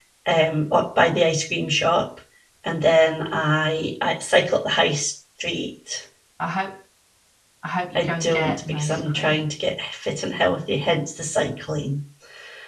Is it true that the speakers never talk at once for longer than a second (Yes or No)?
No